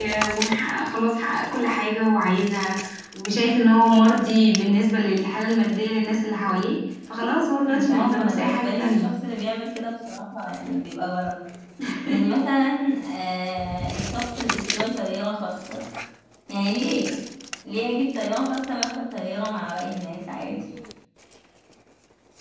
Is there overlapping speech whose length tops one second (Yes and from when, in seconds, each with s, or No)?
Yes, from 7.6 s